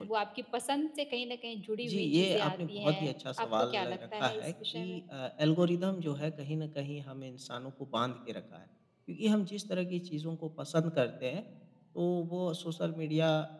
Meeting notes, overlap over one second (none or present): present